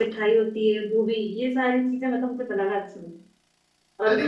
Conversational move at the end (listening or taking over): listening